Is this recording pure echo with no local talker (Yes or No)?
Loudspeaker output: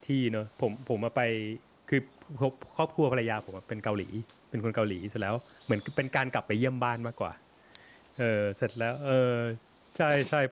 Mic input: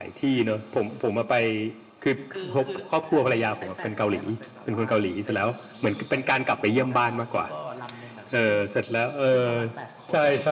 No